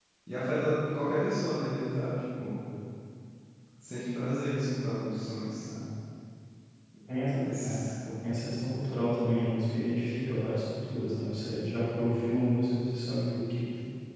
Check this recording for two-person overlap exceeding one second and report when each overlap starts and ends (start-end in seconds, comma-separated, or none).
none